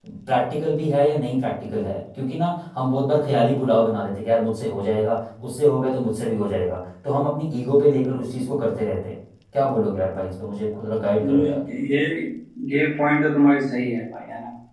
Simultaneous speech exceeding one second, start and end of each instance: none

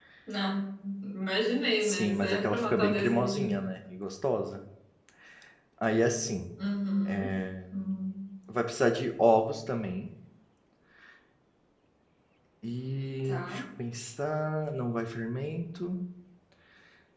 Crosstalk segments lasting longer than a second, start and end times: 1.8-3.6

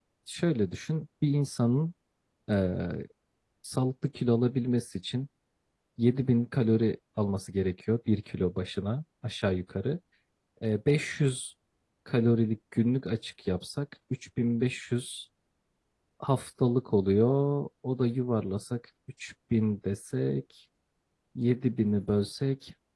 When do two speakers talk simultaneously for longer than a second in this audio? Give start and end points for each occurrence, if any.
none

